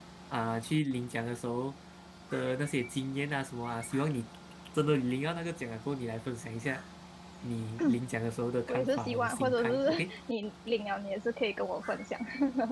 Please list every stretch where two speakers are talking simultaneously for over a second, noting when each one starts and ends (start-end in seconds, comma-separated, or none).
8.7-10.1